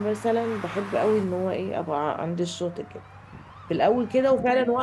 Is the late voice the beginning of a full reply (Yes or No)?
No